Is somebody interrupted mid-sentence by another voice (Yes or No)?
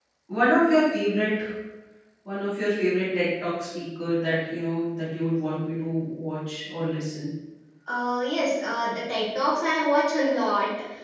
No